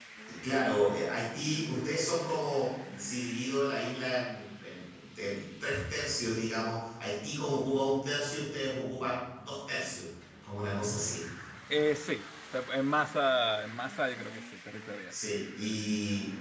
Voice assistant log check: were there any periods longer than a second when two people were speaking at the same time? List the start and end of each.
none

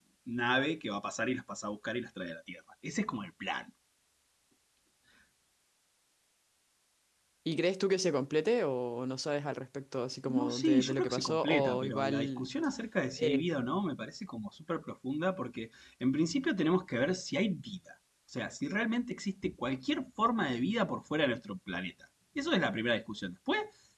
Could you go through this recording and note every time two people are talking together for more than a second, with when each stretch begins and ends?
10.3-12.5

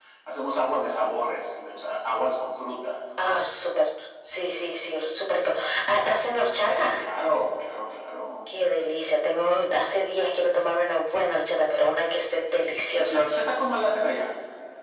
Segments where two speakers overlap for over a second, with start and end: none

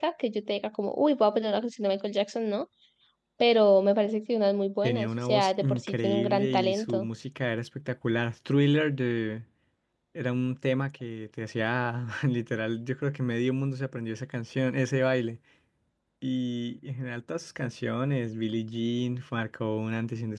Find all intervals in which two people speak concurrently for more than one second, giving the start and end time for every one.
4.8-7.1

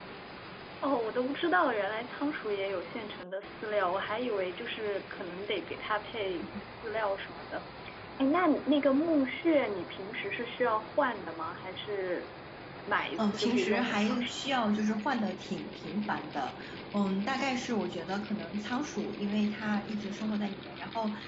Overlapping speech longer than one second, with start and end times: 13.2-14.4

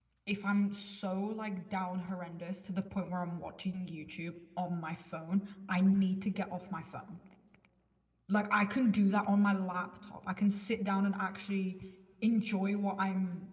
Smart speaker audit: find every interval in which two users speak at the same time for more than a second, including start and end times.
none

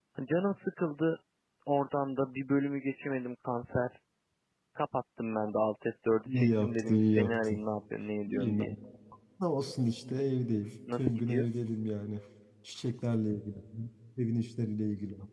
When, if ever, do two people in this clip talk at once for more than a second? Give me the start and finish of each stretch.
6.3-7.6

